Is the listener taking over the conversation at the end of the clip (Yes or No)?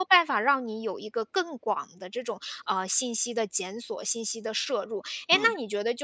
No